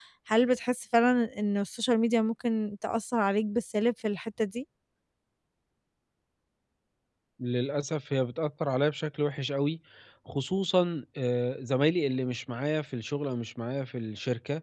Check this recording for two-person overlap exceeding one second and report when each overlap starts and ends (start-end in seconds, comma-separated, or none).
none